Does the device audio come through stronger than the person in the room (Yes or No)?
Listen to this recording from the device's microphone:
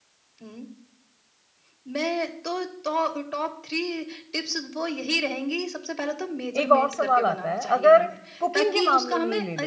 No